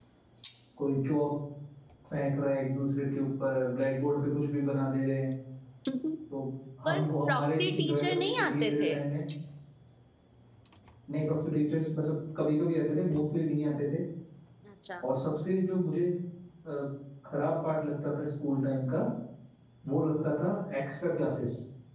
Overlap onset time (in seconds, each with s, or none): 6.8 s